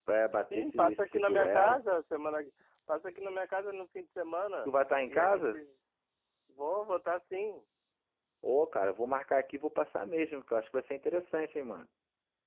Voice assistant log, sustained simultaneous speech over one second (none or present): present